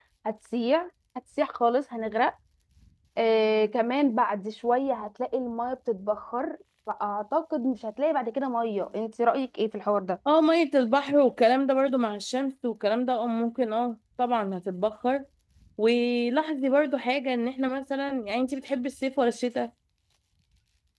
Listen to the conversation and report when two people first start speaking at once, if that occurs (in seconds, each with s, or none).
none